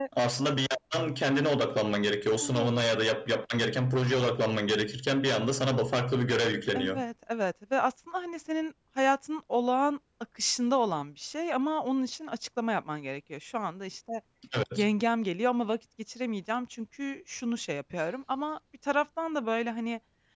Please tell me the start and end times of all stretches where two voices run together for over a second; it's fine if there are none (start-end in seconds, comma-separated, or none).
none